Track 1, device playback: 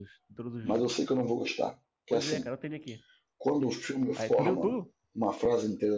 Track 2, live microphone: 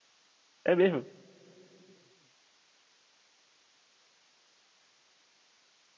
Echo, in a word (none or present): none